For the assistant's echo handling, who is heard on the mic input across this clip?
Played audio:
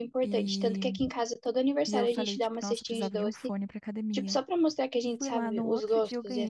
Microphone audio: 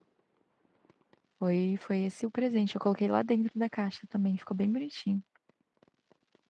user only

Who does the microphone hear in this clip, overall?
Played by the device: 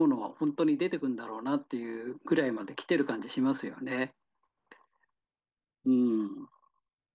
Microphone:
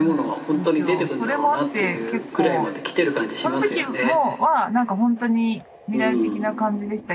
both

